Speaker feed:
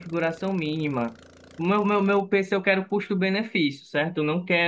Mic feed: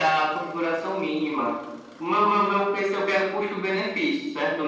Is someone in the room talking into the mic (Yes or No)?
No